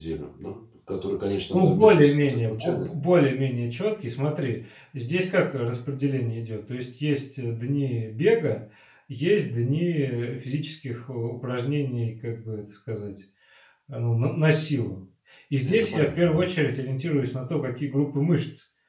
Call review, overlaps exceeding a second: present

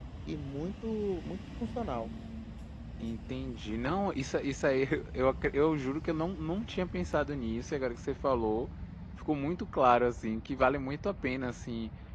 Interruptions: none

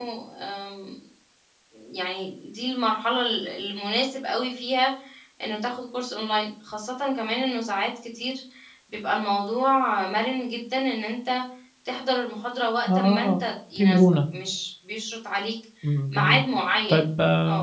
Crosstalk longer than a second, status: none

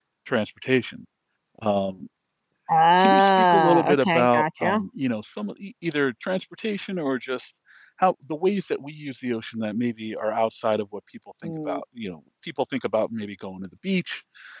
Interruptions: present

